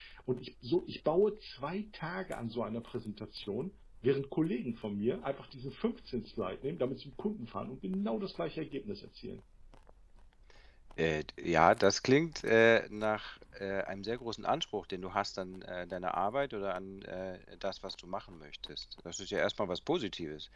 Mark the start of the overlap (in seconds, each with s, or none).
none